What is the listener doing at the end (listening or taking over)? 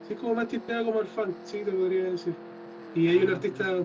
listening